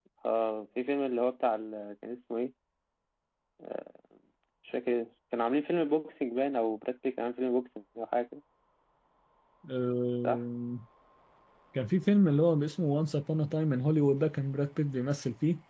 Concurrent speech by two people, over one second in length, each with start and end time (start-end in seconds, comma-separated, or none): none